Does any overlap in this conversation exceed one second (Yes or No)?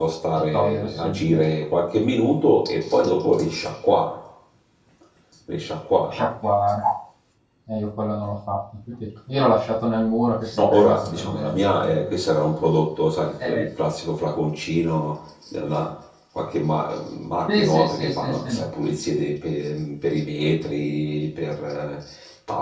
Yes